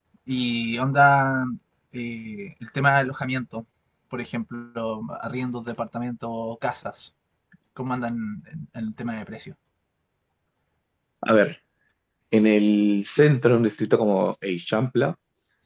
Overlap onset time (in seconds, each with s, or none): none